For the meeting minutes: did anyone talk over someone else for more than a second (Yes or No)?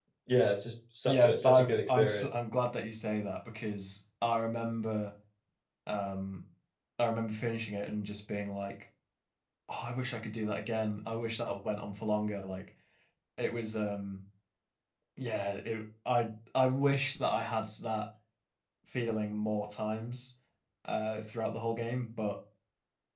Yes